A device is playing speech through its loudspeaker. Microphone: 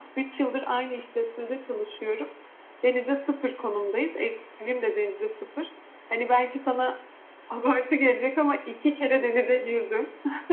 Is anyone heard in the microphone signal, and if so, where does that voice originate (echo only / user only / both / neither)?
echo only